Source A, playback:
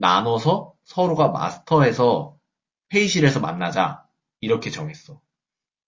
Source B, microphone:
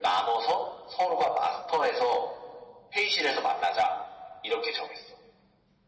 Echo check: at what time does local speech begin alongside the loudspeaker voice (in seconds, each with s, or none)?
none